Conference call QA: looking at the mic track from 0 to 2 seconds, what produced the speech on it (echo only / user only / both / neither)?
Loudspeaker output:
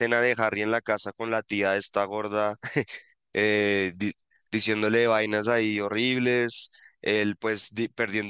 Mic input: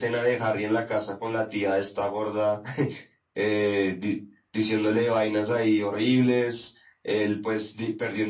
echo only